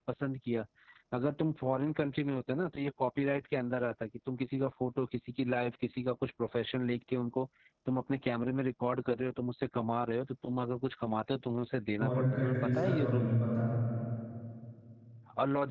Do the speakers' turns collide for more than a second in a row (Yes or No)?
Yes